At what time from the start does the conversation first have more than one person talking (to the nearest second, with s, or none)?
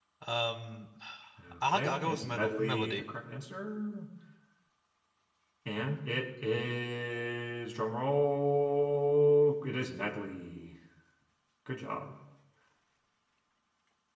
2 s